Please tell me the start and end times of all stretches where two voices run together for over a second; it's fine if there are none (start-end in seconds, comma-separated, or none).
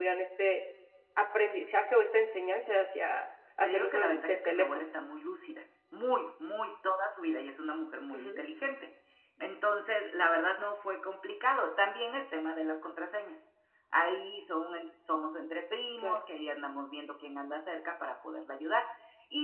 3.6-4.8